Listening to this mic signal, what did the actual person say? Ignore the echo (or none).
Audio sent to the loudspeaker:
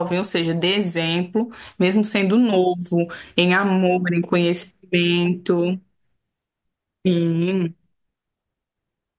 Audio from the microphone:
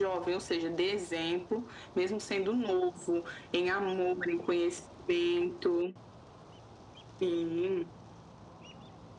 none